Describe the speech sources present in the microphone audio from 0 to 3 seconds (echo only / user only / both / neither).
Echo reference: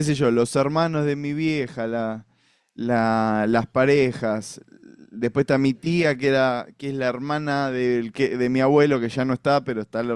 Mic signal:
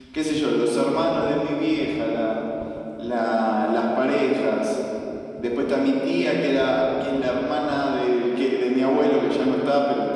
echo only